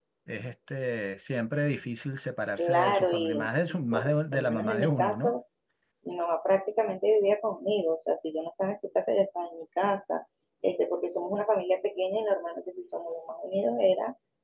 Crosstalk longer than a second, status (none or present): present